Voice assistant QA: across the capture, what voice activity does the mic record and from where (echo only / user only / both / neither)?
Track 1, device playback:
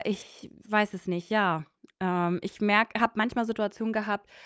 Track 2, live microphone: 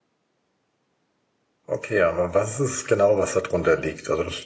user only